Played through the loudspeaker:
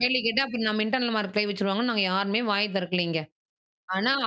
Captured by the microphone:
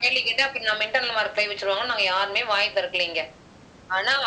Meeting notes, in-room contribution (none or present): none